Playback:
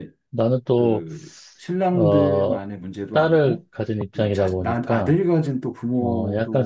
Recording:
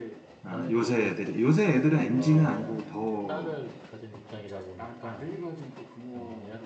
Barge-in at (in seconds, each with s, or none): 0.4 s